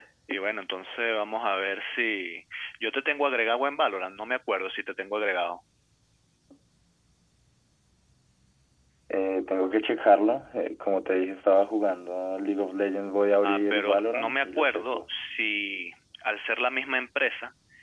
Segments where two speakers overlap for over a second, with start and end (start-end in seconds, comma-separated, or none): 13.4-15.0